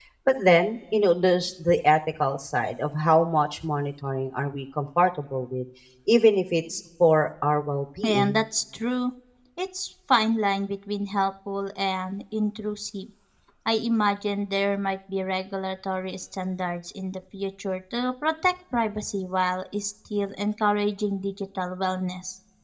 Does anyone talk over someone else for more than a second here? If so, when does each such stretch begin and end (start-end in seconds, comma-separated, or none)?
none